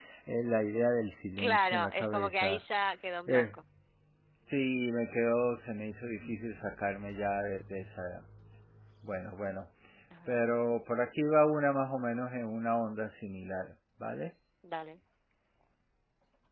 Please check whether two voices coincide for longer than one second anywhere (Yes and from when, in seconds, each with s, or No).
Yes, from 1.4 s